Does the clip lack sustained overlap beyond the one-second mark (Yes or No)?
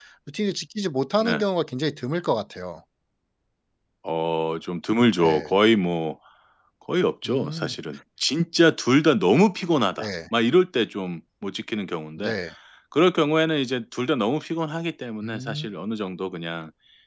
Yes